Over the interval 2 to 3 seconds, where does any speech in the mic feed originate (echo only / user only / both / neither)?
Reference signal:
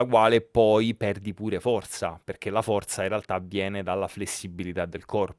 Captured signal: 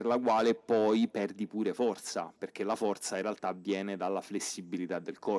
echo only